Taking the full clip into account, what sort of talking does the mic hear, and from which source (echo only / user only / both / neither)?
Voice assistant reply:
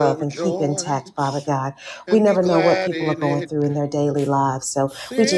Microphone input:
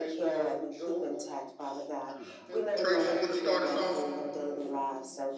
both